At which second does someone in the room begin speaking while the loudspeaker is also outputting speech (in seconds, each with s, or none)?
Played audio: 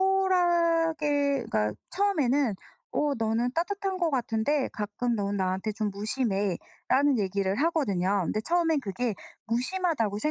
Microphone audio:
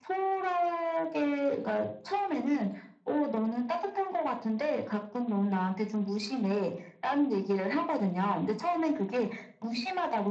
none